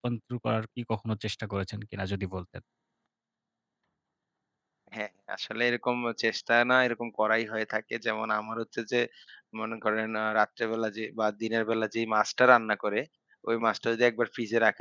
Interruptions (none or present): none